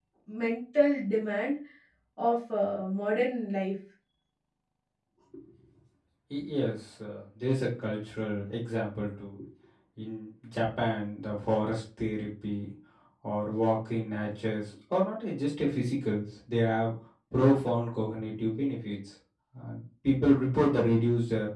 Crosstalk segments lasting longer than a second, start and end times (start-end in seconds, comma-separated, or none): none